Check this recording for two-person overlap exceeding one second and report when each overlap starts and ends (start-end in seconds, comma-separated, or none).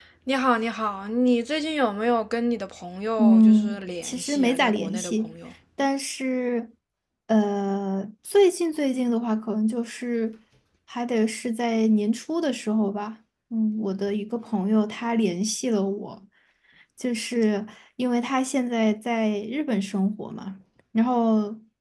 3.2-5.3